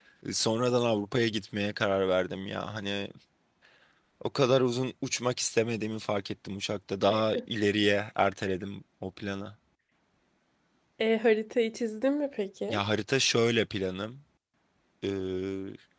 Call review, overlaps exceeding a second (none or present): none